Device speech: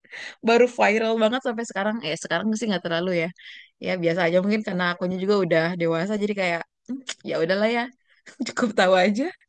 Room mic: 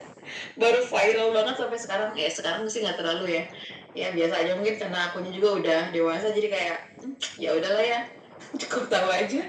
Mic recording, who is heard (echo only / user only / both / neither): echo only